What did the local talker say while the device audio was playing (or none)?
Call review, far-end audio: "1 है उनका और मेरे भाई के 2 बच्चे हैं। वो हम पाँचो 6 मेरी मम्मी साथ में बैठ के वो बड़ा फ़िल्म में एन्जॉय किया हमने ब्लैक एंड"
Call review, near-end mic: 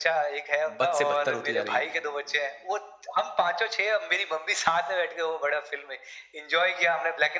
बद से बदतर होती जा रही है।